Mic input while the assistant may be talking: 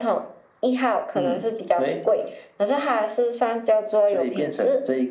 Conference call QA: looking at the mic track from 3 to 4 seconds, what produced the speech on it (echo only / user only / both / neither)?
echo only